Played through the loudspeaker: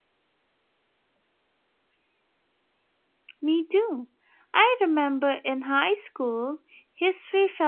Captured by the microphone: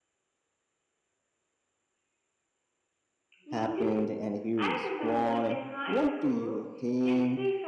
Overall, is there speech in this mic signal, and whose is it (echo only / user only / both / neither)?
both